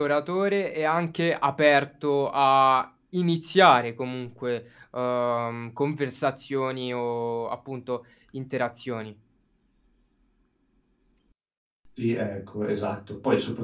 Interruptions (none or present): none